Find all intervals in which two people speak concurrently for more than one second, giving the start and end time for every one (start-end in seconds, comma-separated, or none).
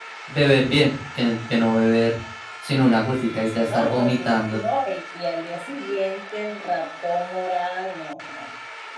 3.4-4.6